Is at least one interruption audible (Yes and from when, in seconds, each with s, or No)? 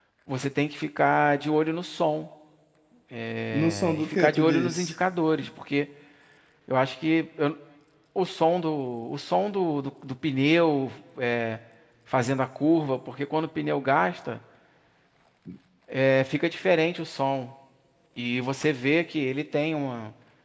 Yes, from 3.6 s